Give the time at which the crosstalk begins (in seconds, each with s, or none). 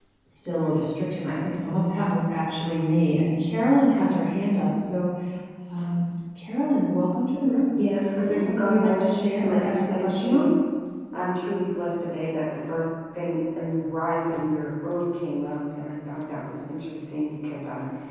8.2 s